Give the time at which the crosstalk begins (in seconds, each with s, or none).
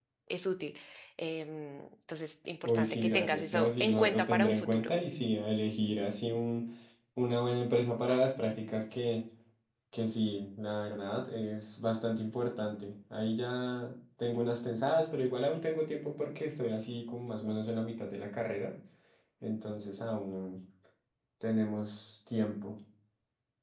2.6 s